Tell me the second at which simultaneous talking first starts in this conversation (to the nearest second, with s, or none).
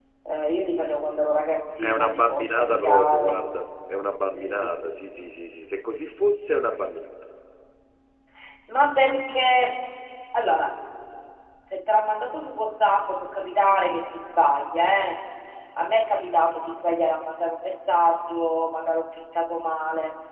2 s